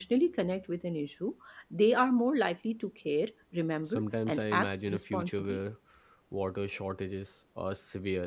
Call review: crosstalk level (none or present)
present